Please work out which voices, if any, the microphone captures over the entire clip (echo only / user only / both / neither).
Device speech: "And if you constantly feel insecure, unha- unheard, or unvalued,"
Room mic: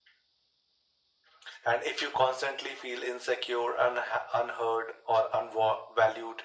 echo only